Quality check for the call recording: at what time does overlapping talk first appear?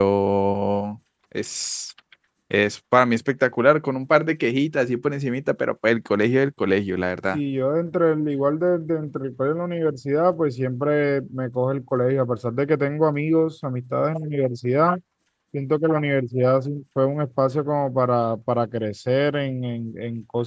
none

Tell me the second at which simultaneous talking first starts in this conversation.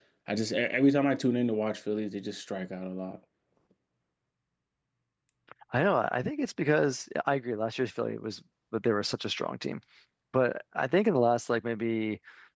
none

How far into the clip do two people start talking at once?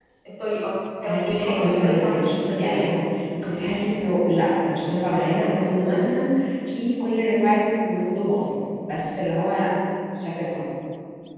1.0 s

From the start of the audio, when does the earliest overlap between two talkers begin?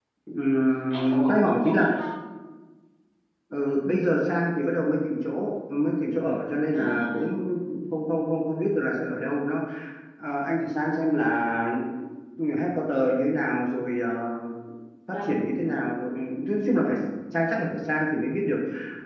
0.5 s

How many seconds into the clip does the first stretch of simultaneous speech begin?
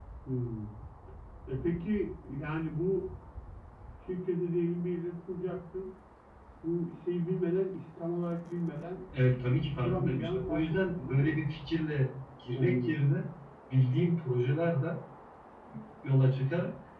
9.8 s

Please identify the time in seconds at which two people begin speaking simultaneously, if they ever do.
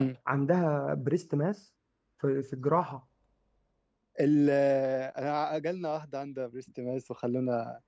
none

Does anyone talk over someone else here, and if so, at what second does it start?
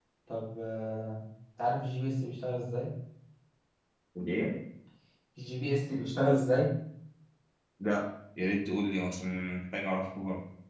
none

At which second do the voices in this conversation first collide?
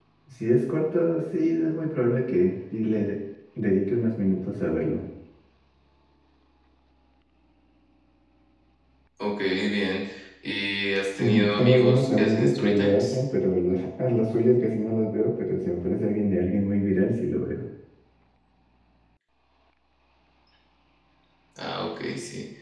11.2 s

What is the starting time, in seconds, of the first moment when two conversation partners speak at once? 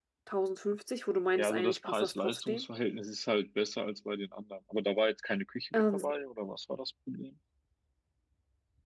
1.4 s

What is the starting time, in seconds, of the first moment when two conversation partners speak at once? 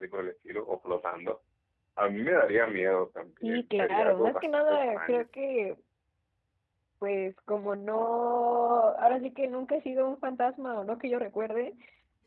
3.4 s

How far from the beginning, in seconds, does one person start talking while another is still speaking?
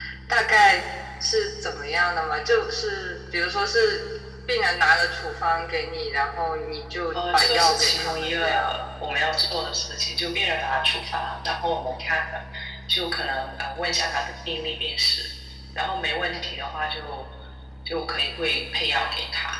7.1 s

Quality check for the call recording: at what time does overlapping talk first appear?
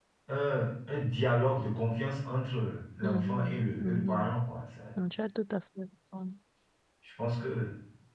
3.0 s

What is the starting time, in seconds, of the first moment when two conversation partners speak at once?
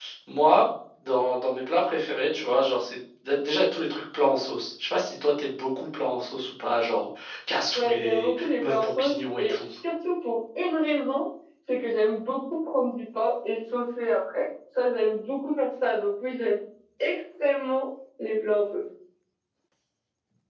7.8 s

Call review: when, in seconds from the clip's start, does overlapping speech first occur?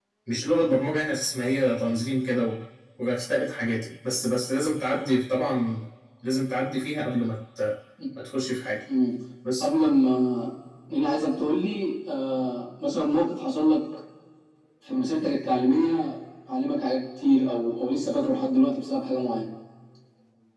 none

